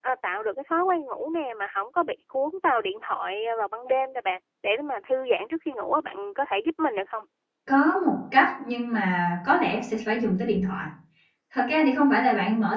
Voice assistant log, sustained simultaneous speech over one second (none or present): none